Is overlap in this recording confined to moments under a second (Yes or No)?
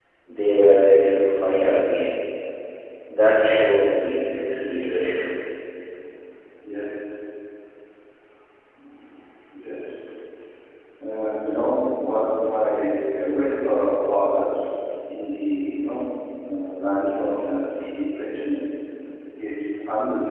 Yes